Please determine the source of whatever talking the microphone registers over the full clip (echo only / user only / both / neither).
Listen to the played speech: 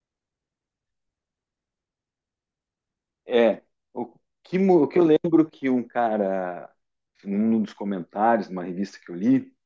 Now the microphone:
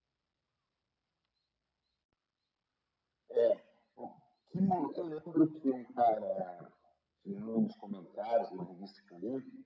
echo only